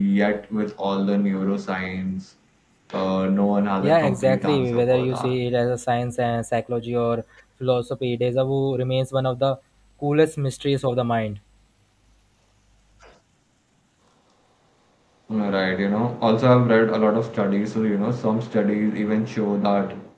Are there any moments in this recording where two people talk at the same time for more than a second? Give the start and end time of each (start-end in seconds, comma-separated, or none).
3.8-5.4